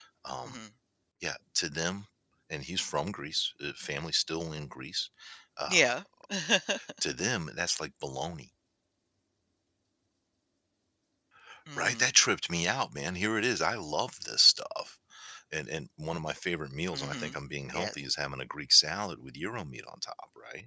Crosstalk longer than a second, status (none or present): none